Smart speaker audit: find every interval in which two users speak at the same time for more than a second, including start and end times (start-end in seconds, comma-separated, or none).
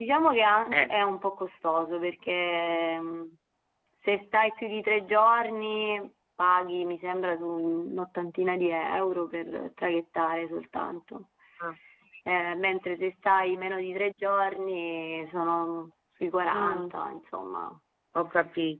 none